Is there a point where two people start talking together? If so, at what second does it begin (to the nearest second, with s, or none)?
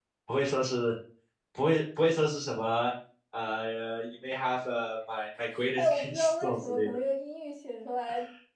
6 s